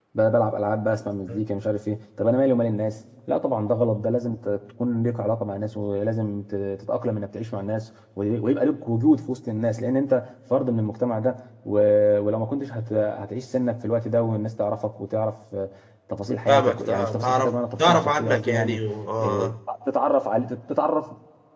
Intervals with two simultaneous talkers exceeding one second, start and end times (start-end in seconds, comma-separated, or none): 16.5-18.8